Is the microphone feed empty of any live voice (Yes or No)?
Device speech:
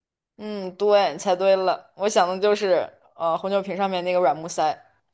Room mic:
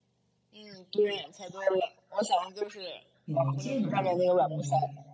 No